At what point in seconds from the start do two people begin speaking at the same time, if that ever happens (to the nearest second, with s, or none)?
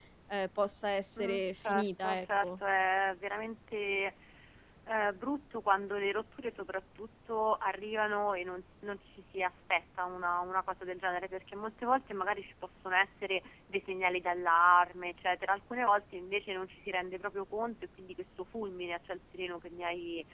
1 s